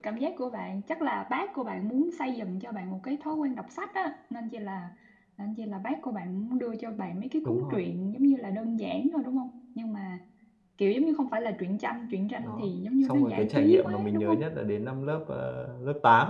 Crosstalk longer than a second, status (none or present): present